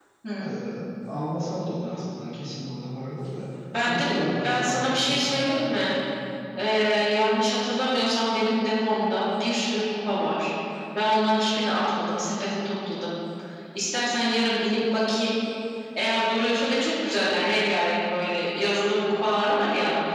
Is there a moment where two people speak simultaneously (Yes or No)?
Yes